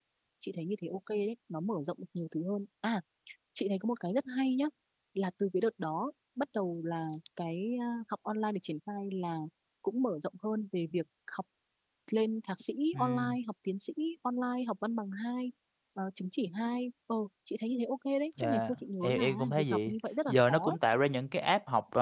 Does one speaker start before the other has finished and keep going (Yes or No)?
Yes